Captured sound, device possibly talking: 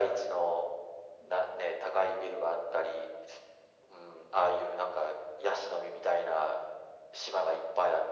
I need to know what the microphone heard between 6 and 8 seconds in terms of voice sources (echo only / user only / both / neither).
echo only